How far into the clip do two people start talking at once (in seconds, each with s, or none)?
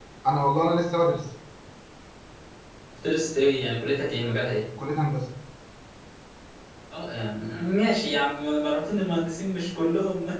none